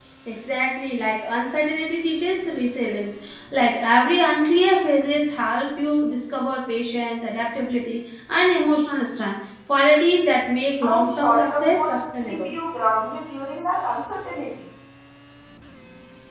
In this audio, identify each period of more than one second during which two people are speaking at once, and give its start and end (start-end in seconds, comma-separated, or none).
10.8-12.5